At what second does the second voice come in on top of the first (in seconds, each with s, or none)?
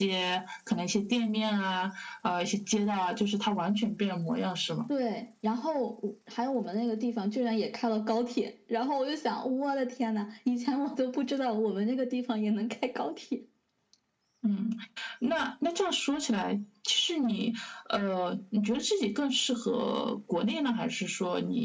none